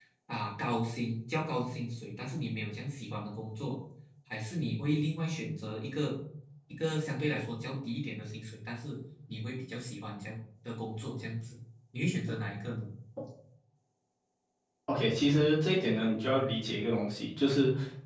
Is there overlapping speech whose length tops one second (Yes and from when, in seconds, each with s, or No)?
No